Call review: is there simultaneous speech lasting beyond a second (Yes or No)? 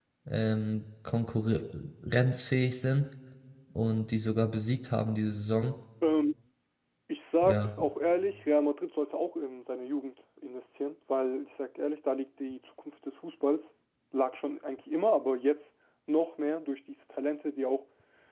No